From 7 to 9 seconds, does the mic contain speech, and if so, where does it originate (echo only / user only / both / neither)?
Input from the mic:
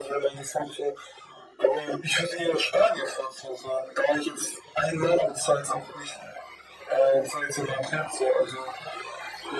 echo only